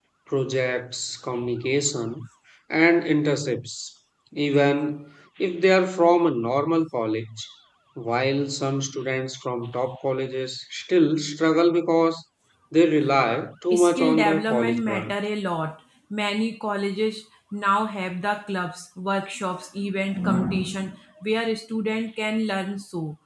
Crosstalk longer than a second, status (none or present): present